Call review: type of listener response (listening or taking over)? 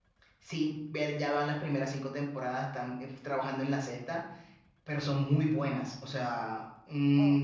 listening